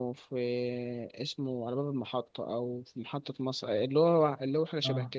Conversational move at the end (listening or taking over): taking over